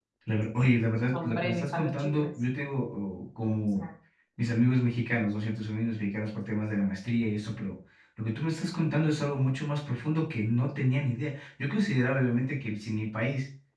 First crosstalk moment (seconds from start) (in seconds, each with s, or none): 1.0 s